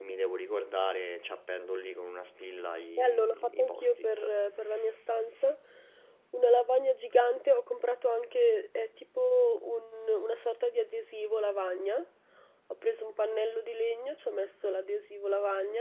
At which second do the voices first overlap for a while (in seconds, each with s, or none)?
3.0 s